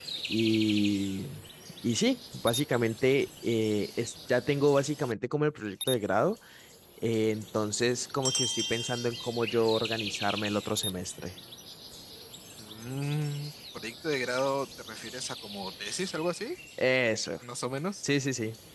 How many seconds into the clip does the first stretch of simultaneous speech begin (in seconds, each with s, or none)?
none